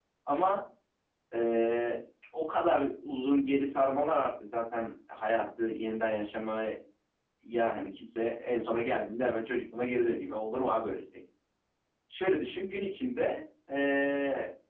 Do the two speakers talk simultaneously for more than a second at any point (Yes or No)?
No